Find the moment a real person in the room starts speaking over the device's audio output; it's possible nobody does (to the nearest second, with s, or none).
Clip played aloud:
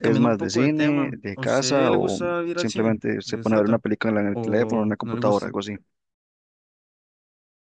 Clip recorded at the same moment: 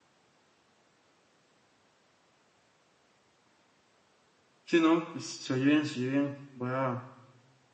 5 s